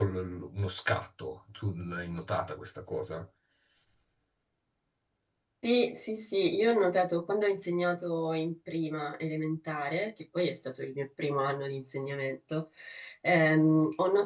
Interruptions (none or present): none